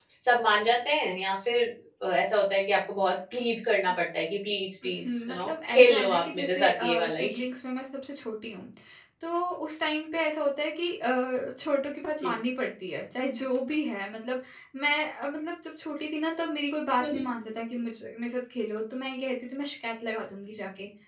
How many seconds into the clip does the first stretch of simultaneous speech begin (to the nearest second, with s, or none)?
5 s